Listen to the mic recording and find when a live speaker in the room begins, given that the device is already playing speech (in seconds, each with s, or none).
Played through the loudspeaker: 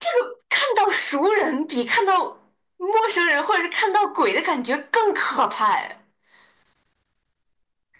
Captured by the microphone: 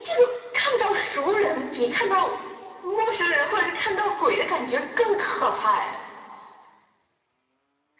none